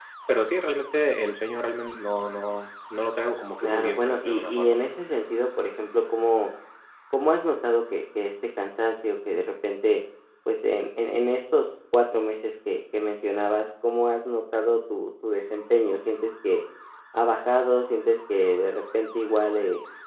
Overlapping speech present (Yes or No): Yes